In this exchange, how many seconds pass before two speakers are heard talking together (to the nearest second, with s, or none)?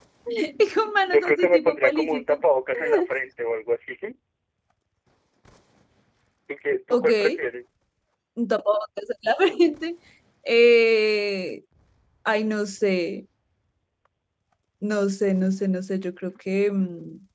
1 s